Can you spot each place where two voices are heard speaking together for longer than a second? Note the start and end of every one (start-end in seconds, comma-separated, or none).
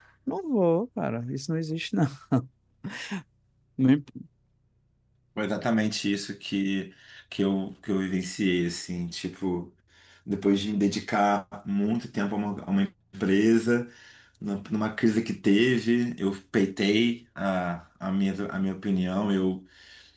none